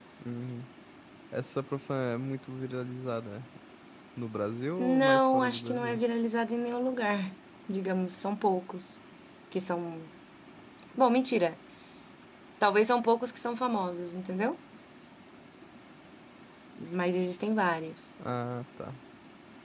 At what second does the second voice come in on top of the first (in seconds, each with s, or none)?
4.8 s